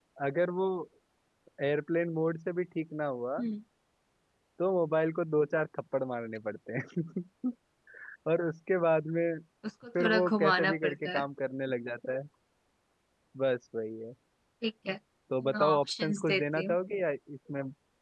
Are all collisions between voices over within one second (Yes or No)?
No